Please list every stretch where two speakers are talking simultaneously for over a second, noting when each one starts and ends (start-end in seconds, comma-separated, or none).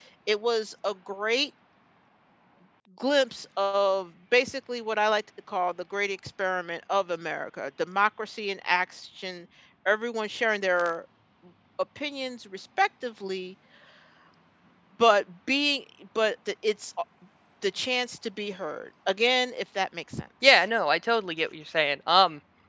none